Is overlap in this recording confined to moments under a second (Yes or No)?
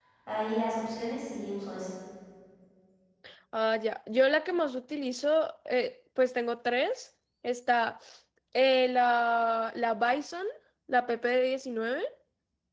Yes